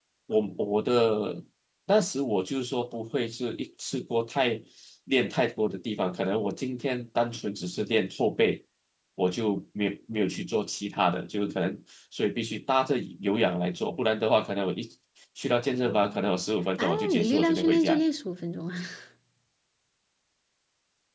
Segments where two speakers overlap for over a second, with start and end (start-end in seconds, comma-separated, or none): 16.8-18.0